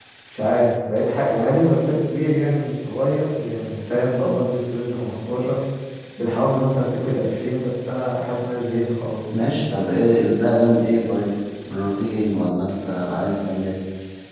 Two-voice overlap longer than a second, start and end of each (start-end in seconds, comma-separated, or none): none